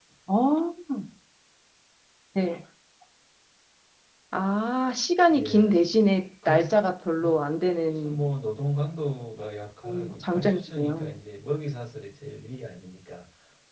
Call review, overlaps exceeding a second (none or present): present